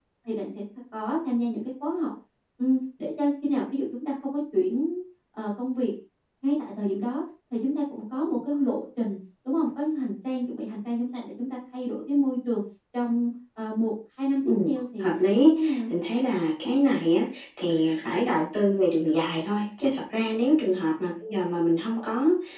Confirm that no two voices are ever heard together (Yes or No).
No